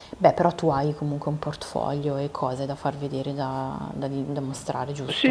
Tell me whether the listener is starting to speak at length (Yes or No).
Yes